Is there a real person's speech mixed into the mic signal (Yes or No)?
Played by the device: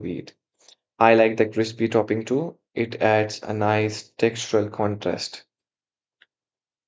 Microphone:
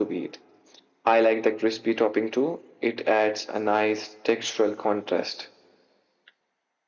No